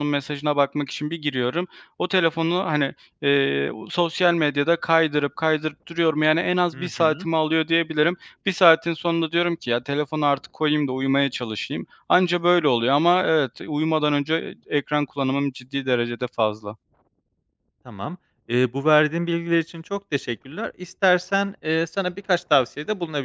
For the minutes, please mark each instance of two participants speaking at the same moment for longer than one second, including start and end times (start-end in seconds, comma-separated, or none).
none